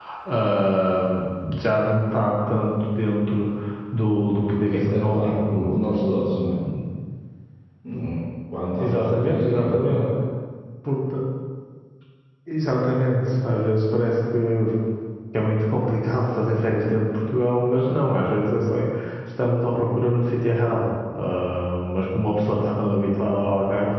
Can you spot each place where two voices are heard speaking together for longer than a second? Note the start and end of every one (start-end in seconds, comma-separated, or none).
4.7-6.6, 8.8-10.1